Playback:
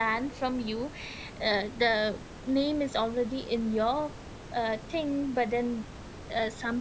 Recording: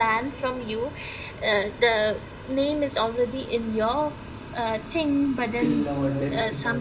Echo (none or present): present